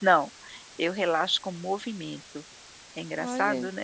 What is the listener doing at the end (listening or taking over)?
taking over